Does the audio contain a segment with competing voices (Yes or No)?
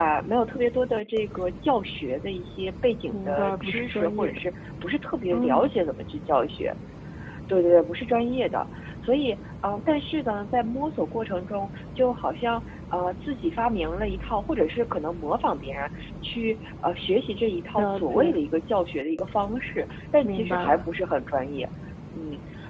Yes